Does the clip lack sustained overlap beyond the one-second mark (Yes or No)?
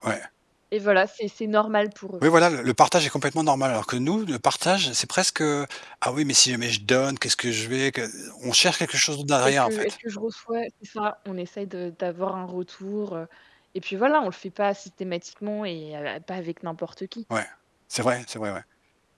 Yes